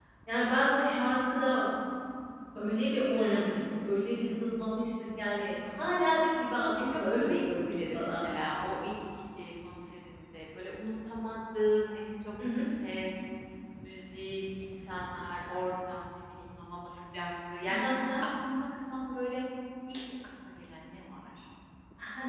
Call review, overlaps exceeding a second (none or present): present